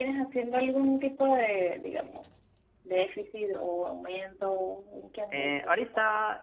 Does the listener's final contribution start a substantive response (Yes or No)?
Yes